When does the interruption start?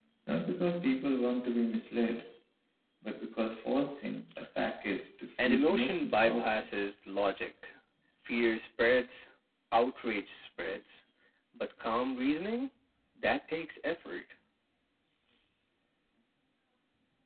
5 s

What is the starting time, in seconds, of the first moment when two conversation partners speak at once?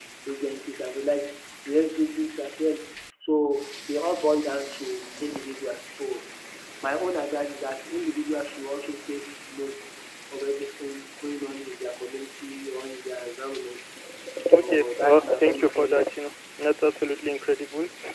15 s

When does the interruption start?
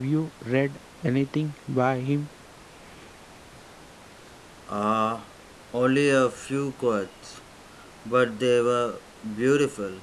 none

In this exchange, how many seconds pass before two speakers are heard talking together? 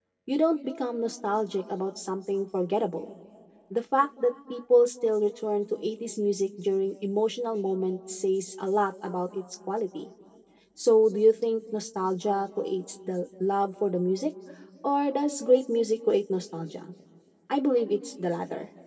none

